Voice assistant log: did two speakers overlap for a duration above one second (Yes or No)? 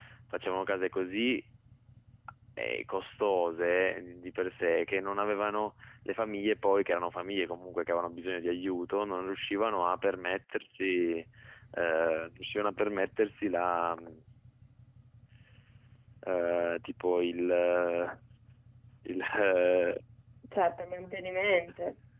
No